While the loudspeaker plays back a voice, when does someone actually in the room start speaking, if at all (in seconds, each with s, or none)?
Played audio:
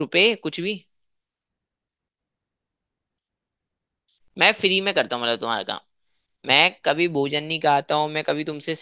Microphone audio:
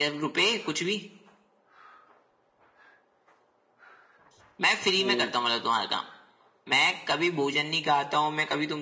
5.0 s